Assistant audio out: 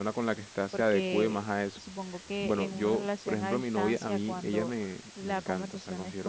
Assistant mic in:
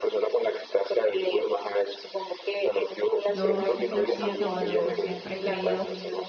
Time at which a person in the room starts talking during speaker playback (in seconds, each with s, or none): 3.3 s